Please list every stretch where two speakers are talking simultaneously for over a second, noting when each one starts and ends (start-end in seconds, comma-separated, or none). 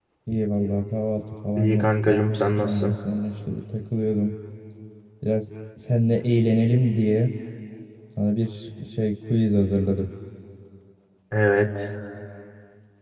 1.6-2.9